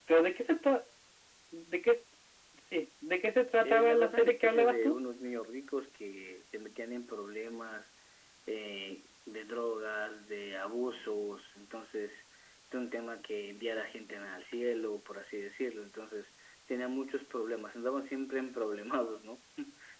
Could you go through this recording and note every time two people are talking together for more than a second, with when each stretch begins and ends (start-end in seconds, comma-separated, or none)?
3.6-5.0